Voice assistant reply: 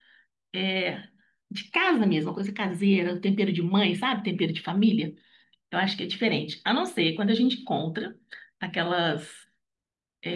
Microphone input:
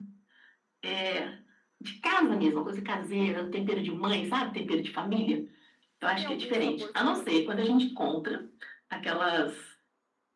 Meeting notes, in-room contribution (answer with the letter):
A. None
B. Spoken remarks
B